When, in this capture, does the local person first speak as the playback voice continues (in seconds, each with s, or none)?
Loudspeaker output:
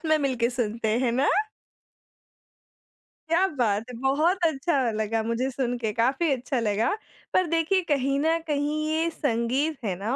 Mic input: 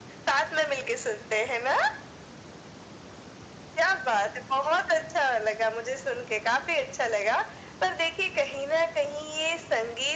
none